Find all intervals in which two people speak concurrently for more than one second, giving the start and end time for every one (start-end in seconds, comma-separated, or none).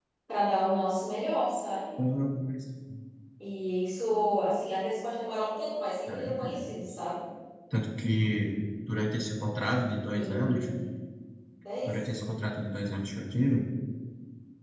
none